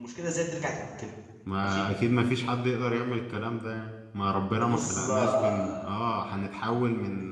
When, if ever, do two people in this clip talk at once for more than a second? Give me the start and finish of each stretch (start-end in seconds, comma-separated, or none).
4.6-5.9